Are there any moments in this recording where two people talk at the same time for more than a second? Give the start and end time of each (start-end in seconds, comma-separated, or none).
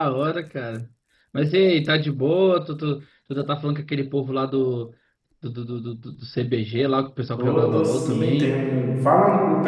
7.4-8.6